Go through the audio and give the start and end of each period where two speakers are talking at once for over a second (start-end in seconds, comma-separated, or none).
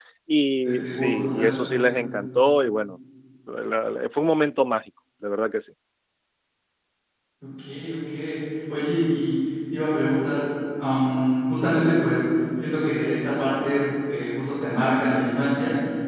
0.6-1.9